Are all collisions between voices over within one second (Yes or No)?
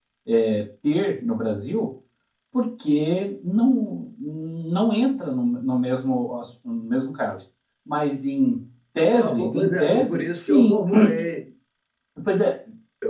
No